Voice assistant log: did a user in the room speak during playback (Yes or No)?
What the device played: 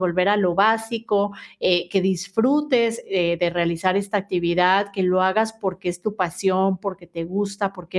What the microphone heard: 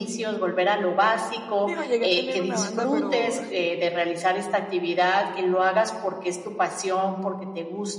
Yes